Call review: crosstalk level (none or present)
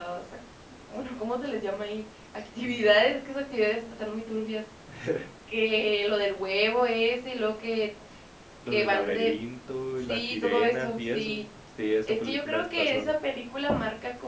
present